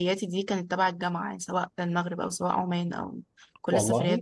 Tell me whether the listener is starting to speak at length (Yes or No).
No